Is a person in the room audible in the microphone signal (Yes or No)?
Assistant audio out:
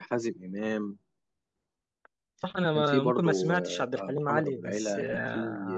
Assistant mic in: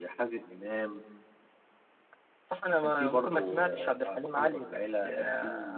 No